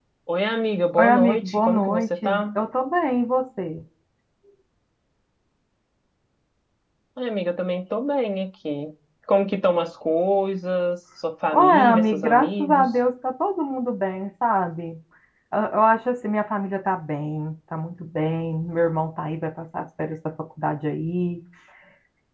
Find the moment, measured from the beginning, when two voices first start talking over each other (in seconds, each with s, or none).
1.0 s